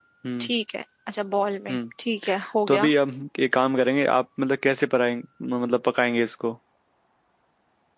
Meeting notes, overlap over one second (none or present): none